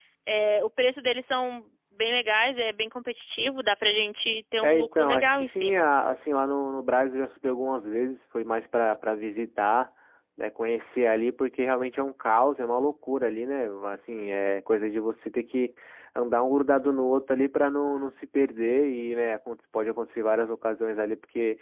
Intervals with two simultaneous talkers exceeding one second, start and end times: 4.6-5.9

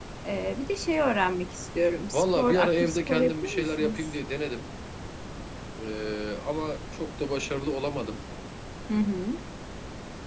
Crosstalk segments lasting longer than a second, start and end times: 2.1-4.1

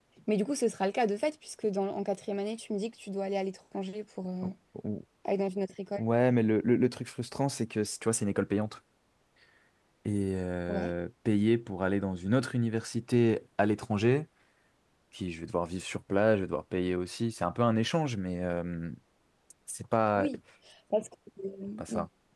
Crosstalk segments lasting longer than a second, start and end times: none

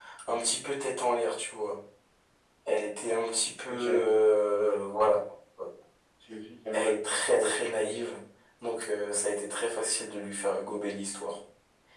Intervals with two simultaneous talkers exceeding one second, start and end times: 6.7-8.0

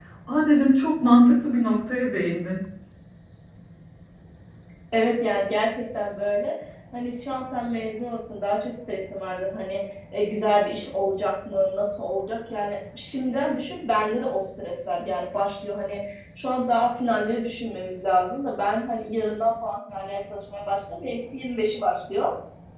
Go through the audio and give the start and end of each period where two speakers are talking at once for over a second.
none

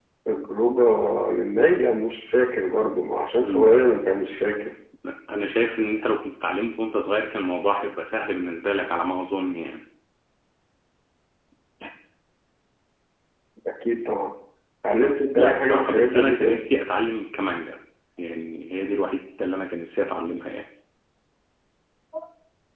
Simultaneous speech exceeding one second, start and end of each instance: 15.4-16.6

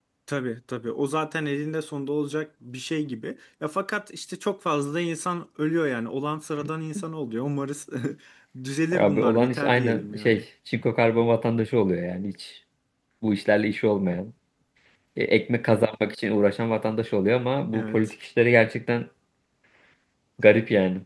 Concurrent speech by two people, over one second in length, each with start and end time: 8.9-10.4

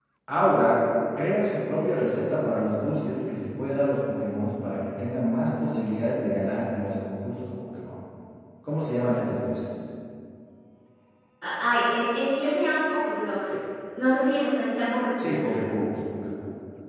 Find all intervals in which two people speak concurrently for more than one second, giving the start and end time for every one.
none

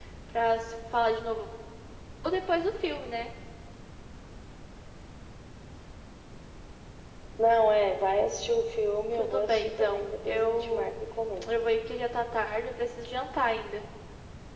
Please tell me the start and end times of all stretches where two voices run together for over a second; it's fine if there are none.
9.1-10.9

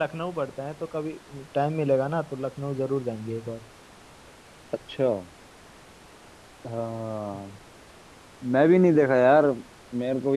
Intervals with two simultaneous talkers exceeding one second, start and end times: none

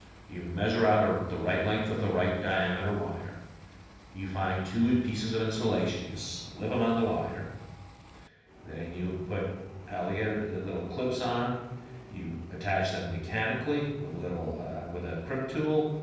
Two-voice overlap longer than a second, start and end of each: none

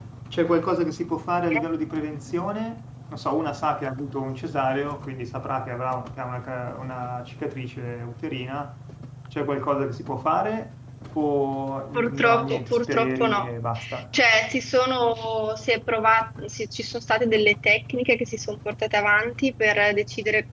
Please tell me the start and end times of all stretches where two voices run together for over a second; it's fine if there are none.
11.9-13.5

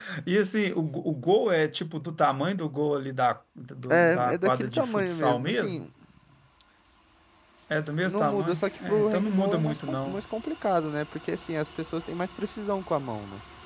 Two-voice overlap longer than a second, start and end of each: 3.9-5.8, 8.0-10.2

